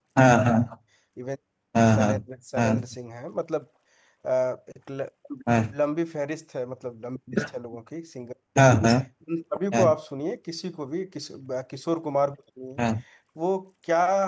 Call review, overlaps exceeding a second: none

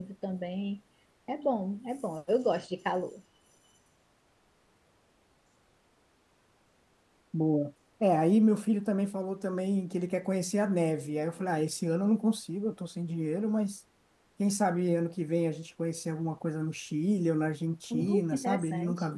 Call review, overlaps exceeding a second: present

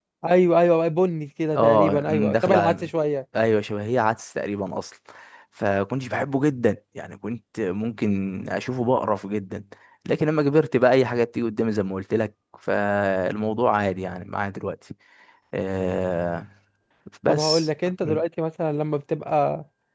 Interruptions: present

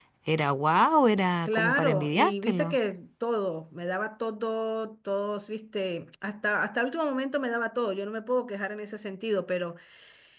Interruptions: present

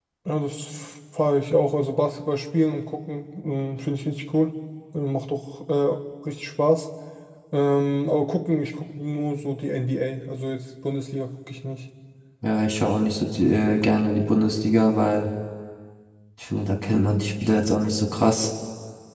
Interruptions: none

